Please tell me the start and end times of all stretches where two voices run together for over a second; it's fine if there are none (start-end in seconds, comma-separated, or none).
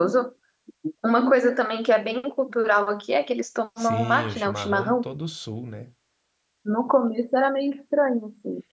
3.8-5.0